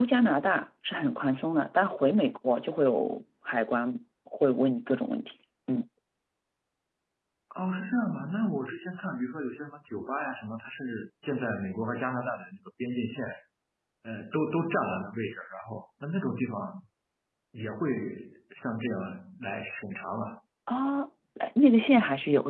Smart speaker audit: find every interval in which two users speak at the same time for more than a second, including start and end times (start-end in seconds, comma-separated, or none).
none